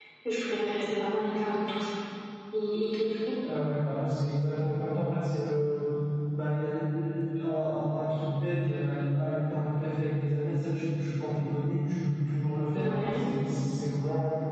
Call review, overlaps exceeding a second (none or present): none